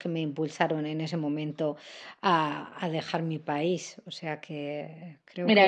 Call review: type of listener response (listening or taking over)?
taking over